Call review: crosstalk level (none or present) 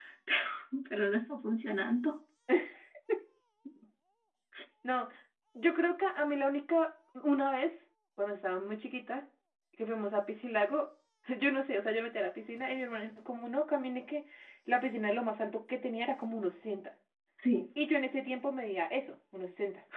none